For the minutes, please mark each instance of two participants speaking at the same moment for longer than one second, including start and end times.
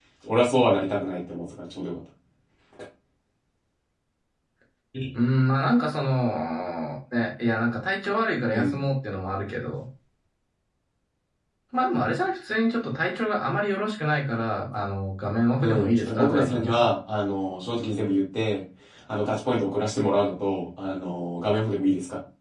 15.6-16.8

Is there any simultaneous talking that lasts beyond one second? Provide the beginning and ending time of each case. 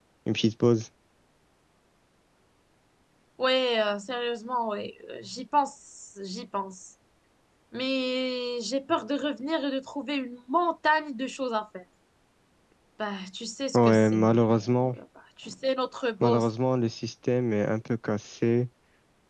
13.7-14.9

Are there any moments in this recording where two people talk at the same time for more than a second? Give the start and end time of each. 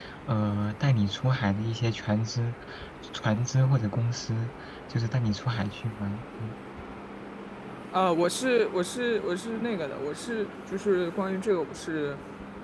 none

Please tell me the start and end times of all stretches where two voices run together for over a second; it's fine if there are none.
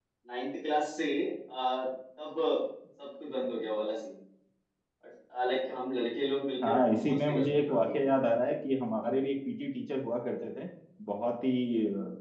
6.6-7.9

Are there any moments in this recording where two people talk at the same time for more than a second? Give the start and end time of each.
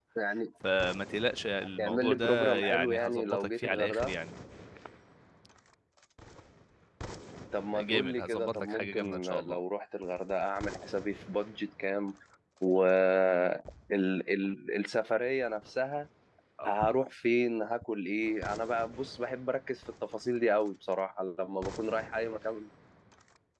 1.8-4.1, 7.8-9.6

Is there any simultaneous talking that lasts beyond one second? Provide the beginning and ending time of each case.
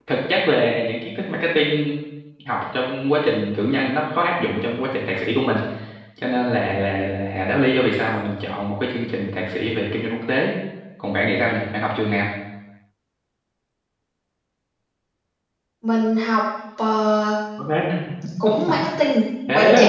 none

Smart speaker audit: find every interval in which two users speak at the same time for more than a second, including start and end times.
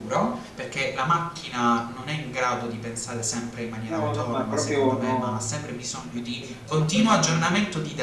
3.9-5.4

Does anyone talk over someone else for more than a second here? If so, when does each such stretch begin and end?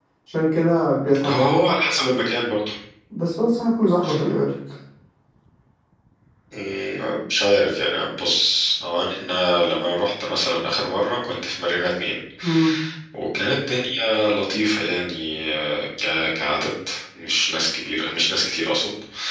none

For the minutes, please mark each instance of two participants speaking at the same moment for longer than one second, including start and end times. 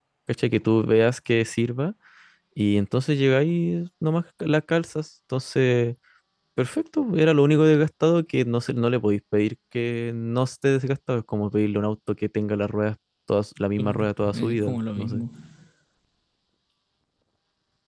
13.8-15.2

